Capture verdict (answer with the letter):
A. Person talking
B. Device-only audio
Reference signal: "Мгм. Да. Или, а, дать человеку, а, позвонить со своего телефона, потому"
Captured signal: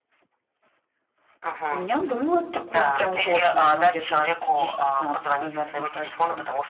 A